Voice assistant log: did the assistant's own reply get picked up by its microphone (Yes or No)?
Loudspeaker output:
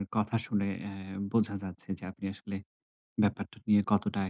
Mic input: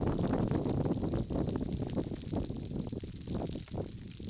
No